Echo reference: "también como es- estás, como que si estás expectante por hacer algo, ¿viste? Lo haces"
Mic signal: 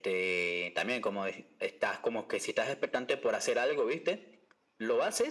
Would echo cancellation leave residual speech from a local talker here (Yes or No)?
No